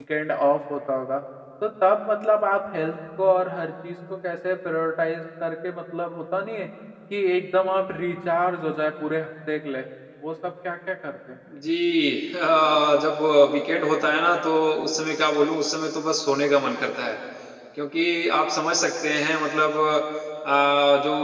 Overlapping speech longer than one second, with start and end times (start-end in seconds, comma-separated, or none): none